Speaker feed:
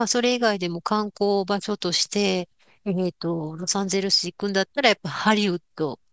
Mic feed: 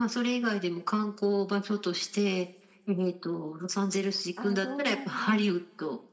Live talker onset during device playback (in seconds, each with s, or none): 4.3 s